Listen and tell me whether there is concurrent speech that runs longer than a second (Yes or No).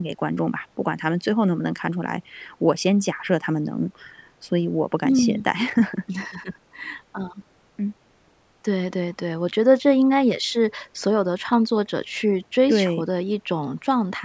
No